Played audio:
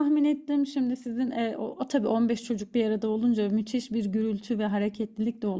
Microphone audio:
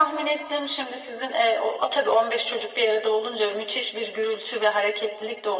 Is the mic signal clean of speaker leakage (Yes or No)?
No